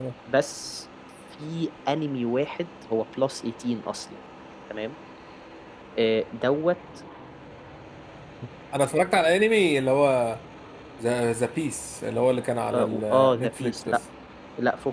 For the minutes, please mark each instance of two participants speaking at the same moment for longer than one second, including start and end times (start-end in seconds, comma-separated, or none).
12.7-14.0